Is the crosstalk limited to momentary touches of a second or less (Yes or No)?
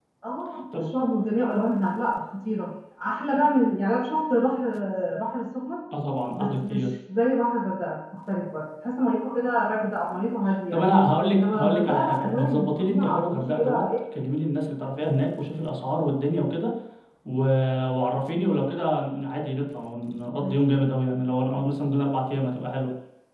No